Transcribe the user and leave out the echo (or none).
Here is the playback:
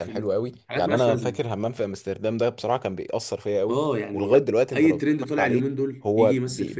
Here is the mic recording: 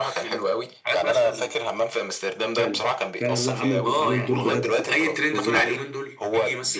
فعلا فعلا لا عمل دو... عمل دور بجد فظيع